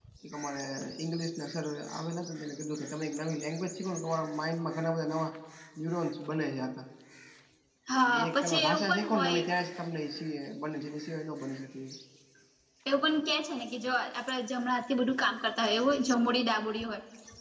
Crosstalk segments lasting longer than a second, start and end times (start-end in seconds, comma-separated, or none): 8.0-9.4